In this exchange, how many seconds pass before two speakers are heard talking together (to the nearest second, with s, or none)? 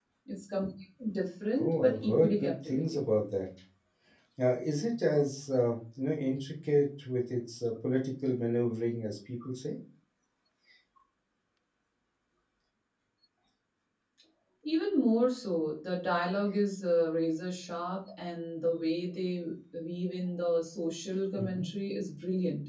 2 s